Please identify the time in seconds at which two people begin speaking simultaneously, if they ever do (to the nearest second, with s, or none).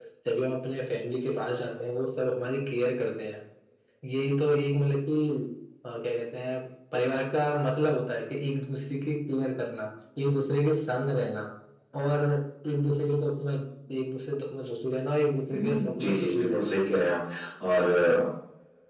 15 s